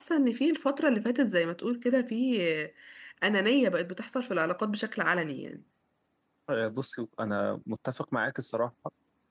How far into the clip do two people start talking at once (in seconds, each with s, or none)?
none